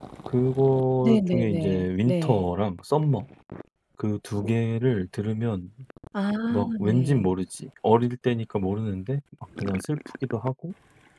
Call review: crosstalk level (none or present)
present